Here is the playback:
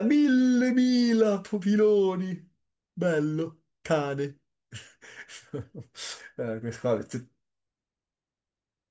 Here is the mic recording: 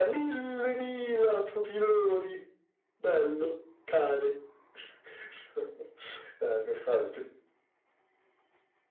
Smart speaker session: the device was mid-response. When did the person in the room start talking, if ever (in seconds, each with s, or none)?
none